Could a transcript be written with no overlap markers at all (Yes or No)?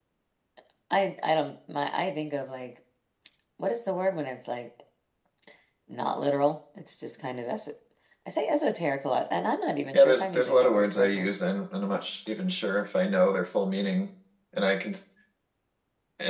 No